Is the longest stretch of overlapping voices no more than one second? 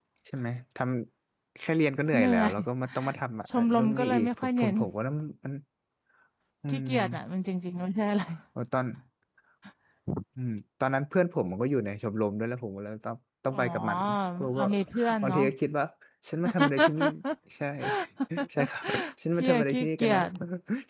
No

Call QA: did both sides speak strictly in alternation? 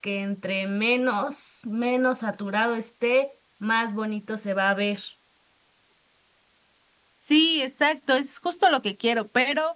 Yes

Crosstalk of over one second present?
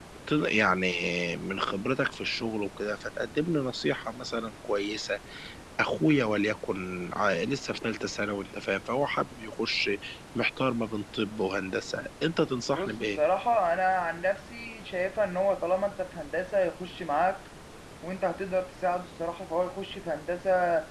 No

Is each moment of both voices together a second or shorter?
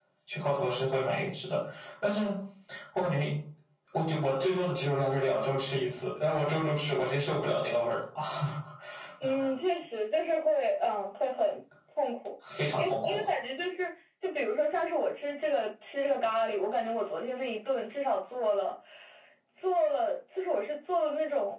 Yes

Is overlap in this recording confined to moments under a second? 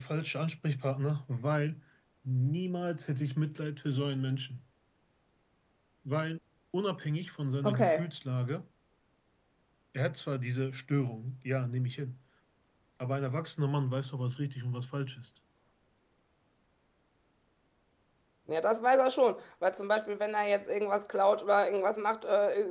Yes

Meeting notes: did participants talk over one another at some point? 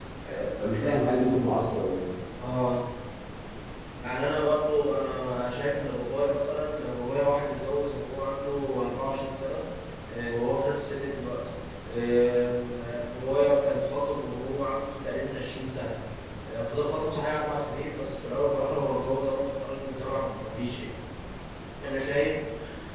No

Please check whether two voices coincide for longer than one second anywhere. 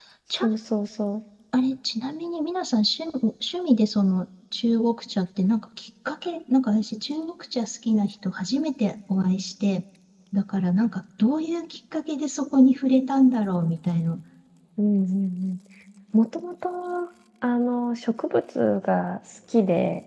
No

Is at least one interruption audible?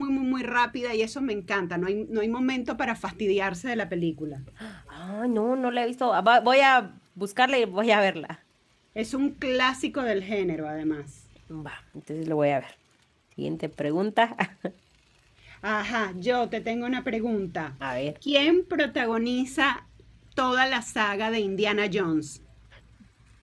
No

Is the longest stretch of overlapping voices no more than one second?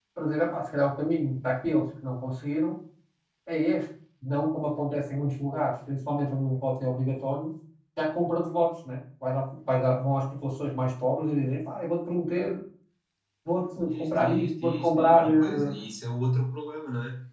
No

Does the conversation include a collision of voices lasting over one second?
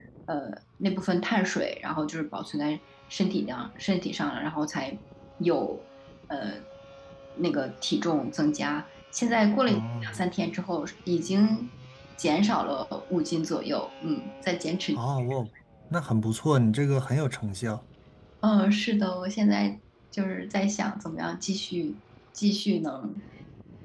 No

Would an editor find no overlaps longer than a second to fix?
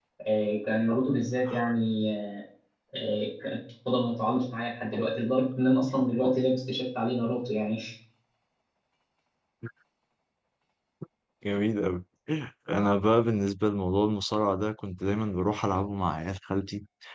Yes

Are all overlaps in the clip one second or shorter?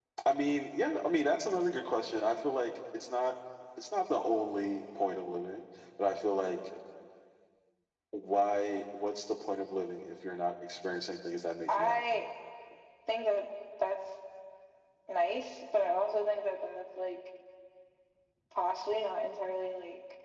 Yes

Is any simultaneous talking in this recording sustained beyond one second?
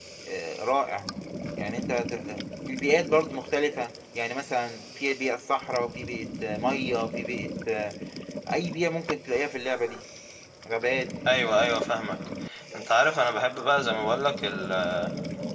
No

